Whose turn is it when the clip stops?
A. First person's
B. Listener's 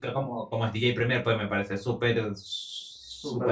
B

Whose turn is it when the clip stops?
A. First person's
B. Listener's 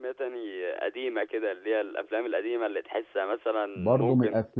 B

